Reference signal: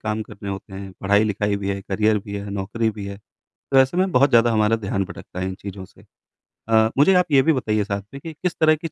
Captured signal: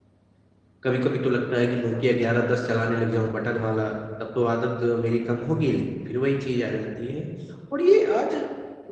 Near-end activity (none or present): present